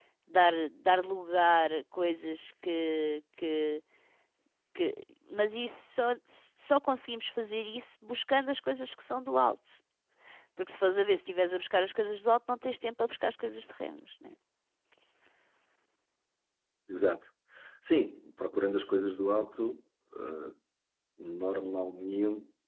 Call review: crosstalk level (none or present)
none